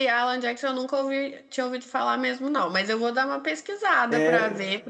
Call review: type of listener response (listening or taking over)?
taking over